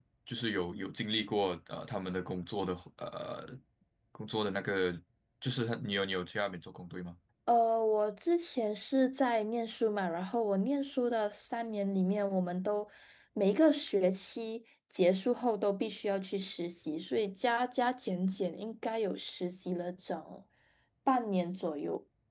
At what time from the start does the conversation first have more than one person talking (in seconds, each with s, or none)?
none